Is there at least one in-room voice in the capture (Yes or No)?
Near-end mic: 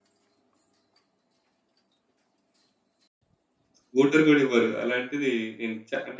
Yes